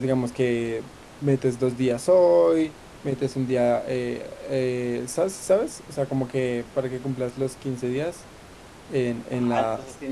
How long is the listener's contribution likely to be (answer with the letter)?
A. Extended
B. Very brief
A